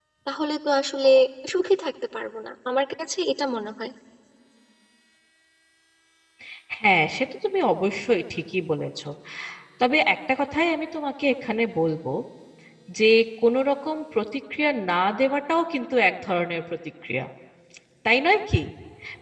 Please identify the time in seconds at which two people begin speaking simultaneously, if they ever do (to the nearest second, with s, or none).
none